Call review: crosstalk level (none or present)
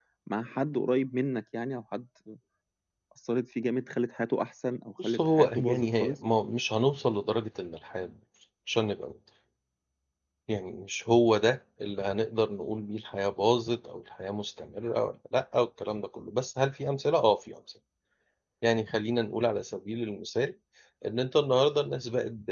present